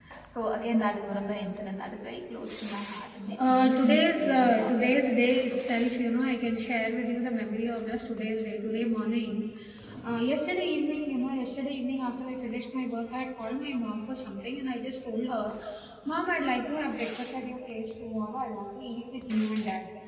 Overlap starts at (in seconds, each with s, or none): 3.3 s